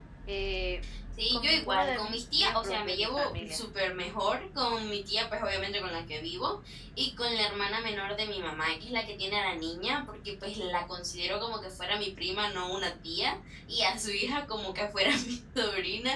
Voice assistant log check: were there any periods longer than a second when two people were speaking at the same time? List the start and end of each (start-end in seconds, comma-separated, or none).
1.3-3.6